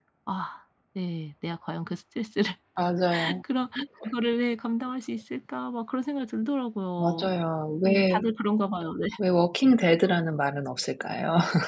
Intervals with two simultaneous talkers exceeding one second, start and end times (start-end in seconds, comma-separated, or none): none